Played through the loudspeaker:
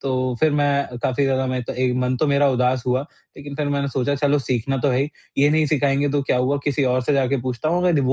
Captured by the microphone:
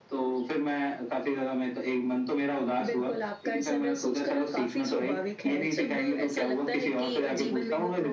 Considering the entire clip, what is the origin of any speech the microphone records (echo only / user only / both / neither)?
both